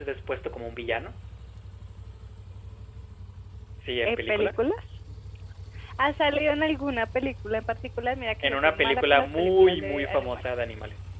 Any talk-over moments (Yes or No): Yes